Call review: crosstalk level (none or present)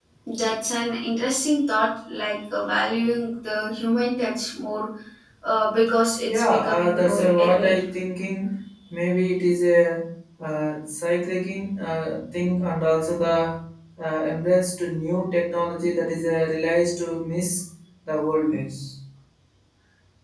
present